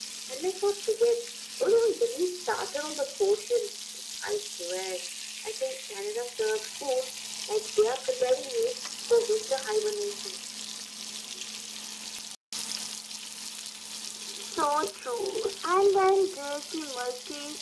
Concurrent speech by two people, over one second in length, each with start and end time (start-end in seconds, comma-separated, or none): none